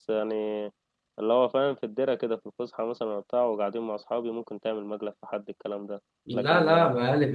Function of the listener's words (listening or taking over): taking over